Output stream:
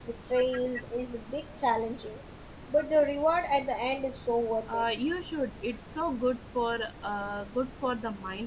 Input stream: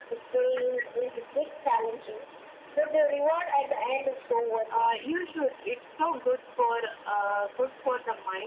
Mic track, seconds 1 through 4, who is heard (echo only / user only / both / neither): echo only